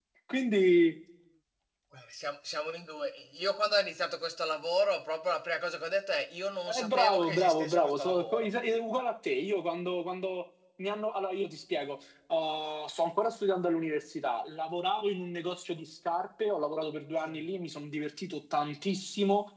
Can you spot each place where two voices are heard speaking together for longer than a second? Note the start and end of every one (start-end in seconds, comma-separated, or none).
6.7-8.5